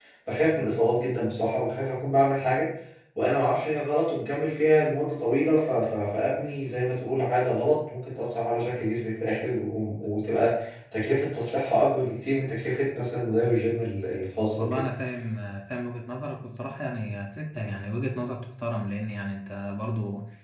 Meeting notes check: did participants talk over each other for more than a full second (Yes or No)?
No